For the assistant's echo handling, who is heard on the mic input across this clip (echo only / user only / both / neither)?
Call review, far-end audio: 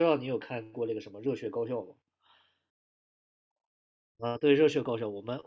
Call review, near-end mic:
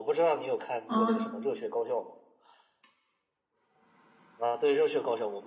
both